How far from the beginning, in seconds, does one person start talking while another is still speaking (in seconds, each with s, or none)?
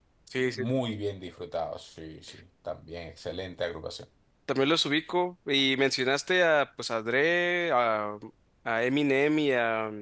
none